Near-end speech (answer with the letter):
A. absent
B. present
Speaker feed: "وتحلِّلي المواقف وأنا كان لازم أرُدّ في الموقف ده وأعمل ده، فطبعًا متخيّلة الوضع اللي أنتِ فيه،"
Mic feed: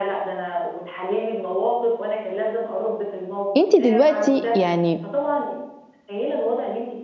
B